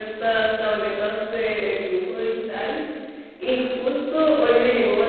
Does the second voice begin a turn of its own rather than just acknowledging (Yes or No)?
No